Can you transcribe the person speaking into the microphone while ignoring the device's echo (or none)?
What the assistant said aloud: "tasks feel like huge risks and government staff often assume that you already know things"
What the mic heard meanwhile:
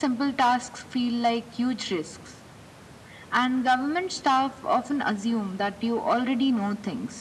none